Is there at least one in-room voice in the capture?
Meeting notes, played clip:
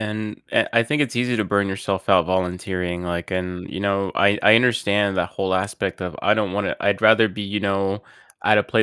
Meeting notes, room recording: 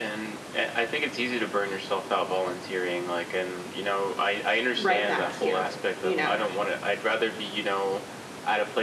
Yes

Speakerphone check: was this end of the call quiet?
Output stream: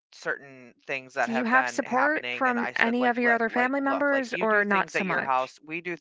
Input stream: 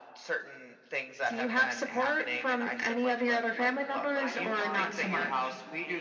No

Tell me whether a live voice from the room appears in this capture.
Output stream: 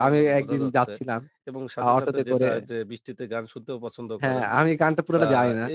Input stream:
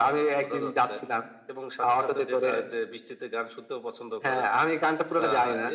No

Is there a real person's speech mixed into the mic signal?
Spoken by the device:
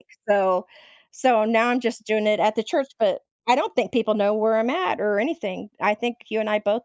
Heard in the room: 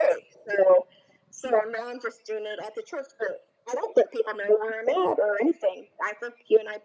No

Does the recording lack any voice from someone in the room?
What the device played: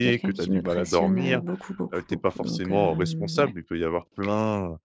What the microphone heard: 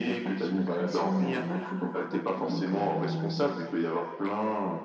Yes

